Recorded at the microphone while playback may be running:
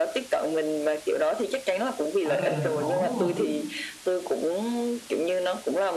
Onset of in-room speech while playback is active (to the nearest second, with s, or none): 2 s